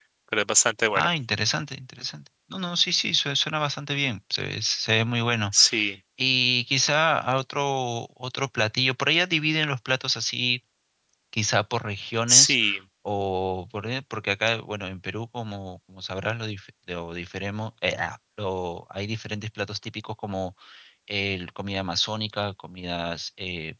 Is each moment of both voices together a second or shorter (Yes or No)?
Yes